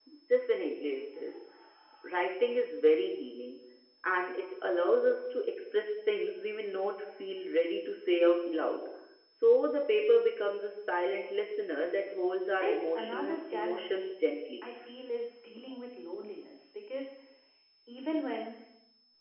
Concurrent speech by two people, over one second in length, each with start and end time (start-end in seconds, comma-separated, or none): 12.6-14.0